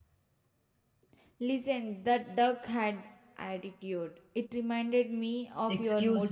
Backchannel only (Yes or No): No